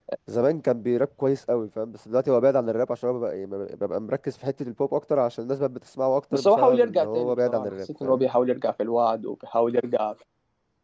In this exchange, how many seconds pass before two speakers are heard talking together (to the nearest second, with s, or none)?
6 s